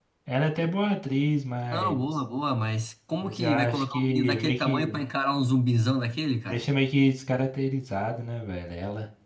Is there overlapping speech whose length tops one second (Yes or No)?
Yes